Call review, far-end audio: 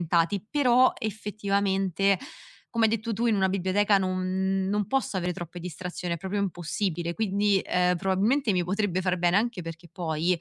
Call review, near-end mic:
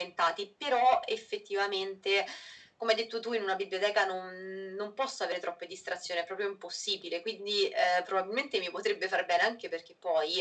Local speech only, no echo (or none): none